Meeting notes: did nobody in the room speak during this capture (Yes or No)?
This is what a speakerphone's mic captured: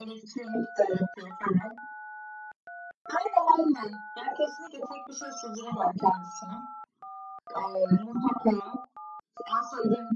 Yes